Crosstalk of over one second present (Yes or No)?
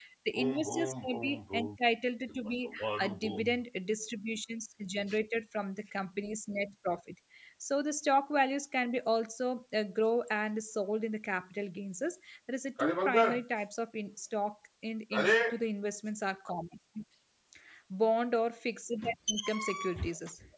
Yes